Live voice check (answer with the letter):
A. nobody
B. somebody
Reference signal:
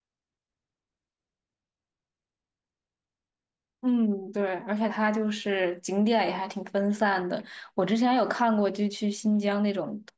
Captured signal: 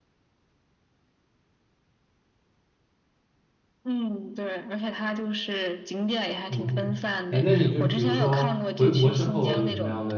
B